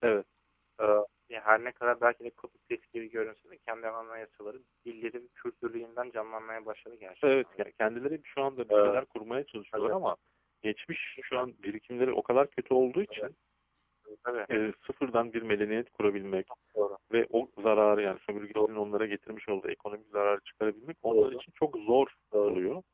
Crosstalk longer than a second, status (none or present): none